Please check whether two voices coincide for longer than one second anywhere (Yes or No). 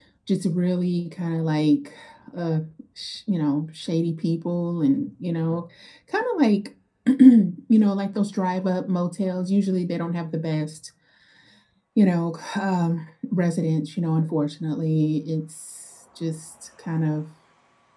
No